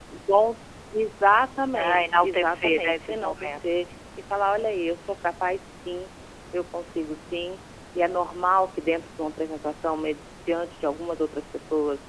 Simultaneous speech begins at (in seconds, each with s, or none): 1.7 s